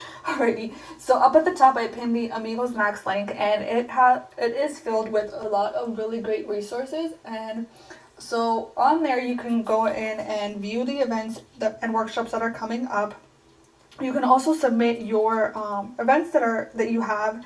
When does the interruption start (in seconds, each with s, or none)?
none